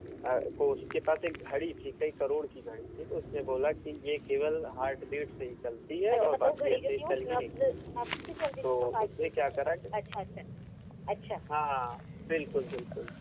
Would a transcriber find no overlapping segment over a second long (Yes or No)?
No